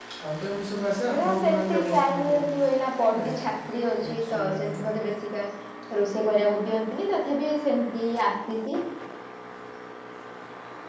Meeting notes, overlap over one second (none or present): present